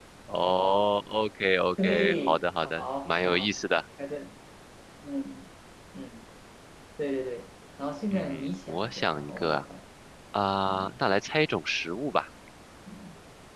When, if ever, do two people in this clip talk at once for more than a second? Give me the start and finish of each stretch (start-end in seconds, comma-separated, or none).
1.8-3.5, 8.1-9.6